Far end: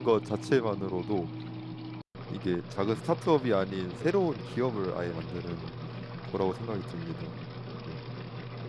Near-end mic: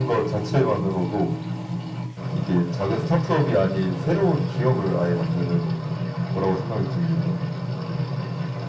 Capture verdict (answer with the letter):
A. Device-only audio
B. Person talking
A